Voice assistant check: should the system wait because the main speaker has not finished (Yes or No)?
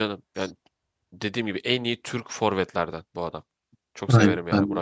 No